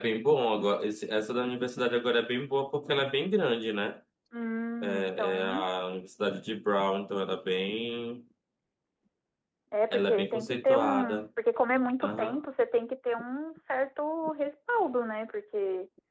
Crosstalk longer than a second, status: present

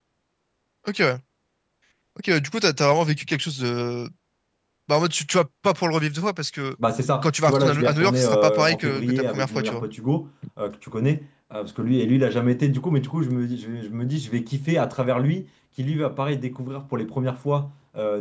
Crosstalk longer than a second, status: present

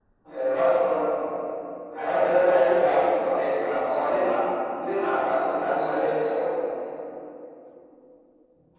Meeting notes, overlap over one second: present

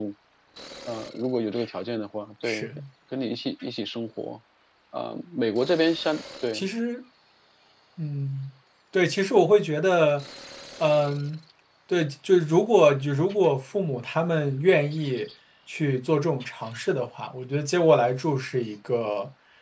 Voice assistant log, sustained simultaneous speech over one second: none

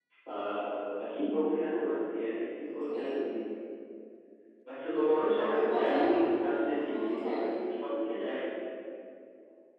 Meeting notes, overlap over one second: present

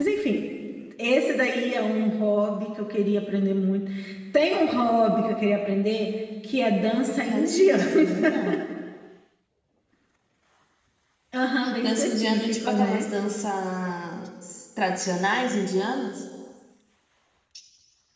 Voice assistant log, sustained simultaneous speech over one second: present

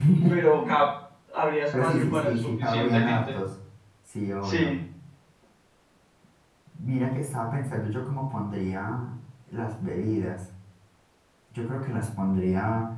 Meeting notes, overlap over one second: present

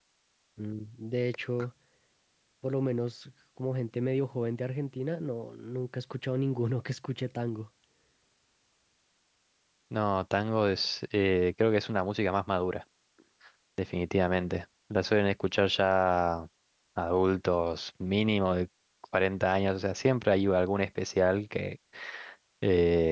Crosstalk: none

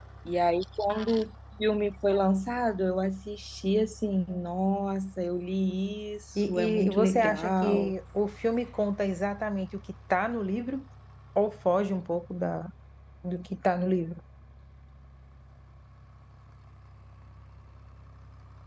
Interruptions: present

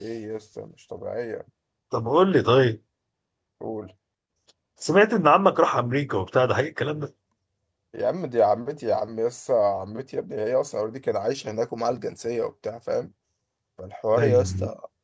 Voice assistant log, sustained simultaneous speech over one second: none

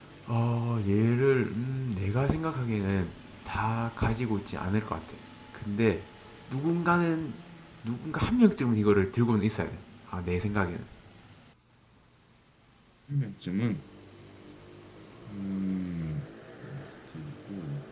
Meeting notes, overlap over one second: none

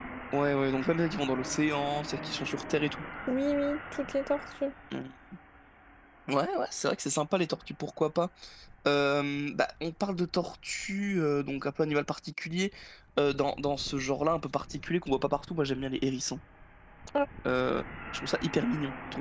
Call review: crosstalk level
none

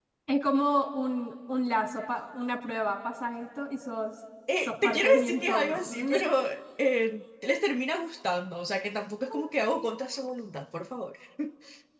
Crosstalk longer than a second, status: present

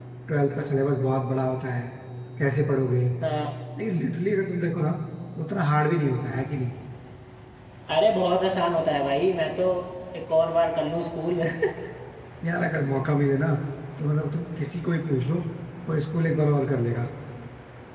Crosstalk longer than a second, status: none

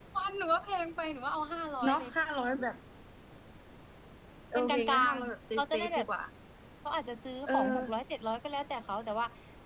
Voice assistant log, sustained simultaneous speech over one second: present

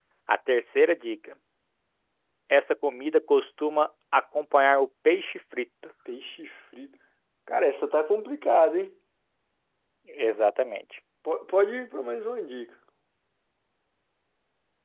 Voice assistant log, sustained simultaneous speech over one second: none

